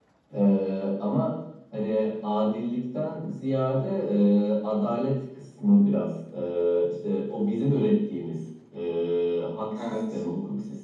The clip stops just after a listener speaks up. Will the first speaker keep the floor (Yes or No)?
Yes